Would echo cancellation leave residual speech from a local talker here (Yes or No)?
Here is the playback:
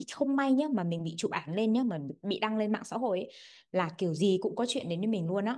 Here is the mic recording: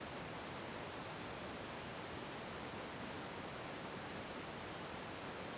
No